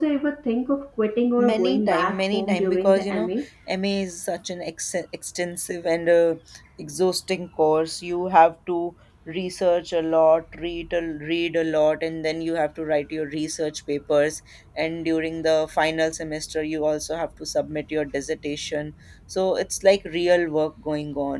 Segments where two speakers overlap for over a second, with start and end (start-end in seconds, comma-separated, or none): 1.5-3.3